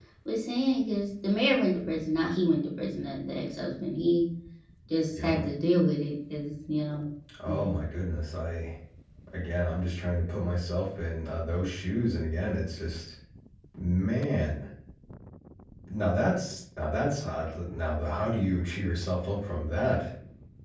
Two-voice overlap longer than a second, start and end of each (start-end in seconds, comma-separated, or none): none